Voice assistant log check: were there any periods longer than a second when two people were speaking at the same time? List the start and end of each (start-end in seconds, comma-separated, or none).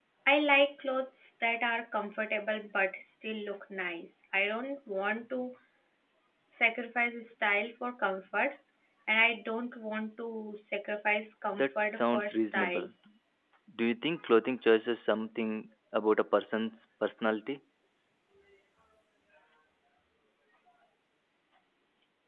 11.5-12.9